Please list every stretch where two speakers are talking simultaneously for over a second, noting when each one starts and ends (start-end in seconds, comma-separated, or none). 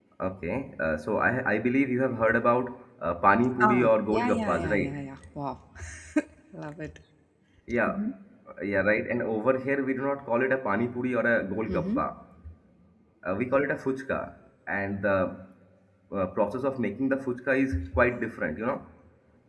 3.6-5.0